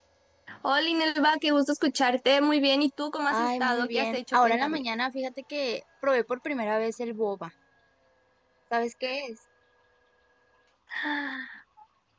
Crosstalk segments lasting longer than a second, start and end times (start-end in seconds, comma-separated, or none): 3.3-4.8